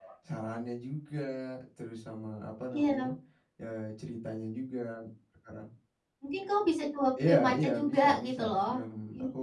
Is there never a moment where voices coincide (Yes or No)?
No